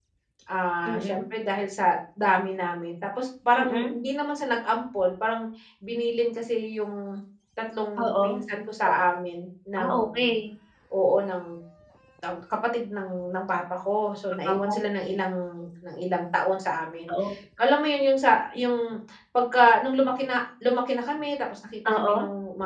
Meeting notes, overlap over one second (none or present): none